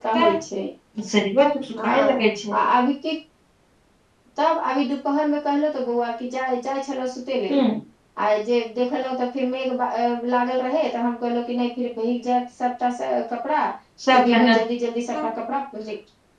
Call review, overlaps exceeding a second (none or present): none